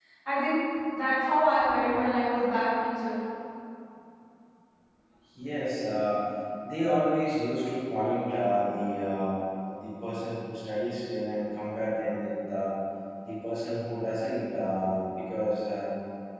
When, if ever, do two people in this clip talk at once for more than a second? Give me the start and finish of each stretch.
none

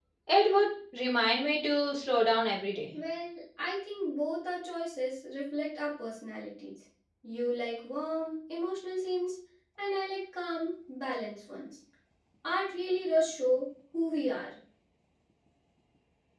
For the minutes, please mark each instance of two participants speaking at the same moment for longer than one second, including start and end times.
none

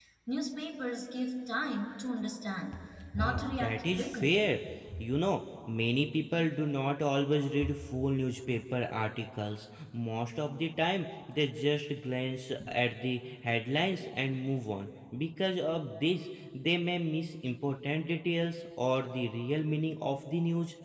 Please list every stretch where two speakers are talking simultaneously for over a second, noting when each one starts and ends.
3.2-4.4

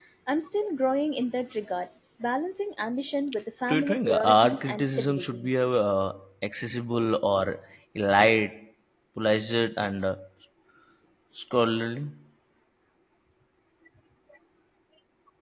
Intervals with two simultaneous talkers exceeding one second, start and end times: 3.7-5.5

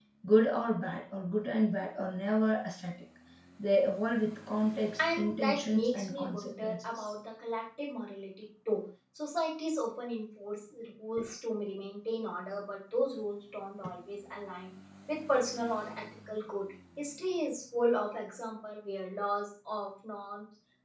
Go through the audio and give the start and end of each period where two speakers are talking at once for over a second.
5.2-7.1

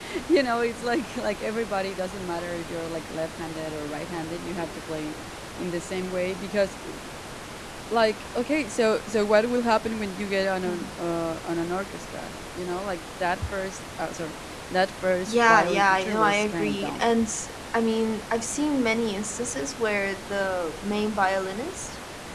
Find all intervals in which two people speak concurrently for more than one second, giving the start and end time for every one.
15.3-17.1

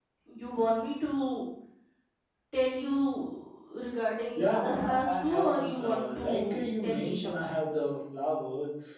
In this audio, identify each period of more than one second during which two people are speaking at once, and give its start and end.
4.4-7.5

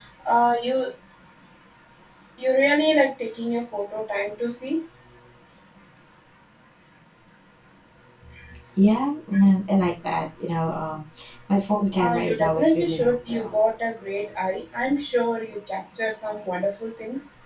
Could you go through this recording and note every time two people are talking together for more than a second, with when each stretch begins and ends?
12.0-13.5

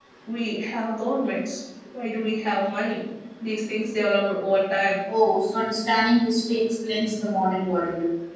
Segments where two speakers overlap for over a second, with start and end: none

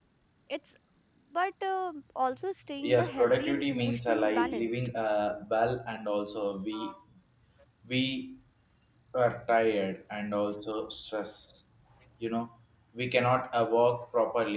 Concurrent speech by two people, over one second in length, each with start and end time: 2.8-4.9

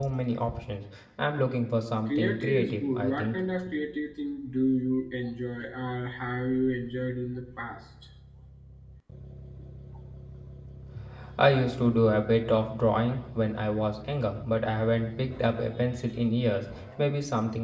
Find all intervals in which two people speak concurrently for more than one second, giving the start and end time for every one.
2.1-3.4

